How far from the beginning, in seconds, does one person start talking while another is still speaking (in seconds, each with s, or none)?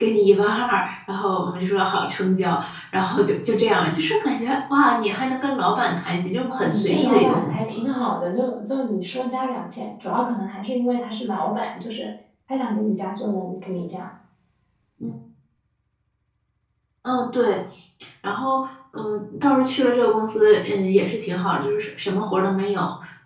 6.4 s